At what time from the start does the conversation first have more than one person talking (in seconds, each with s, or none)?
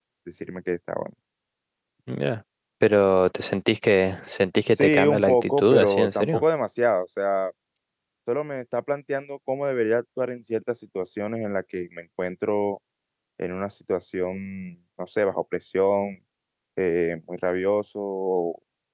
4.8 s